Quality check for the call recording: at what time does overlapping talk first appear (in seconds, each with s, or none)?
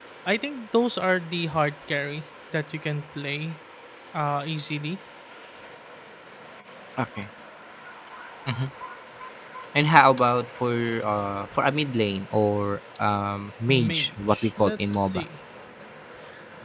13.7 s